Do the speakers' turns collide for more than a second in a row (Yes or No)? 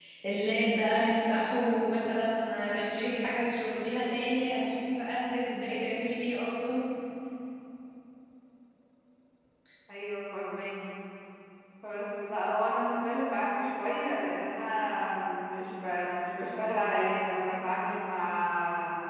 No